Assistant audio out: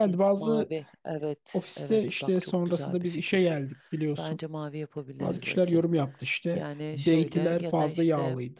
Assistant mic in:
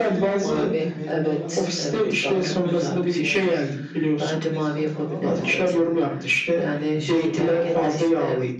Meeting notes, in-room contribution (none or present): present